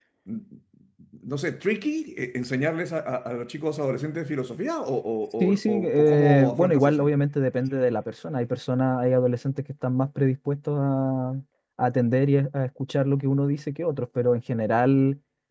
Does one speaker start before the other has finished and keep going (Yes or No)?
Yes